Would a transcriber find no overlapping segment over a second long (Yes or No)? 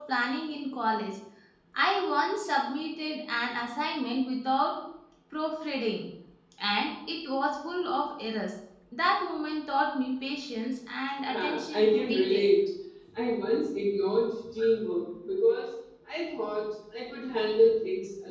No